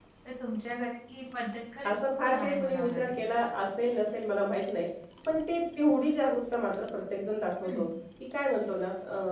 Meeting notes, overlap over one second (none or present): present